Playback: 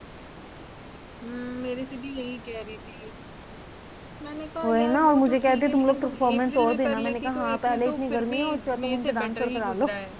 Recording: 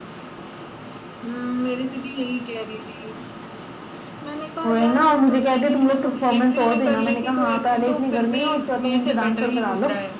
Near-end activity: none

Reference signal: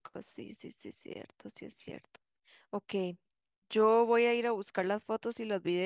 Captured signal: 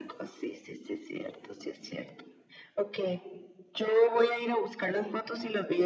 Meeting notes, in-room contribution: none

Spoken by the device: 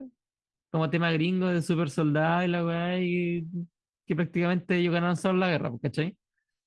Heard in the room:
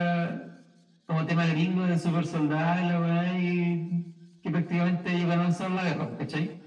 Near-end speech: none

